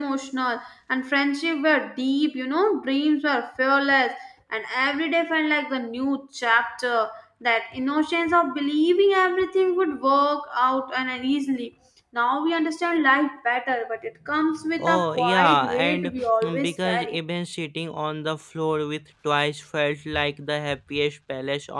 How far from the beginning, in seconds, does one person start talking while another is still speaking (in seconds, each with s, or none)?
14.8 s